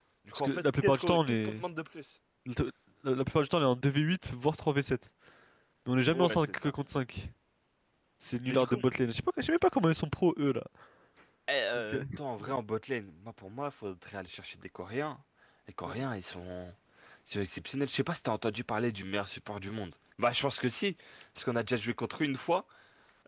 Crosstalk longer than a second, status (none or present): present